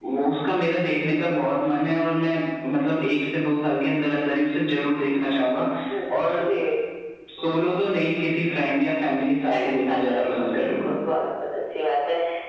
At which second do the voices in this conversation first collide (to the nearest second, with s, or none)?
9 s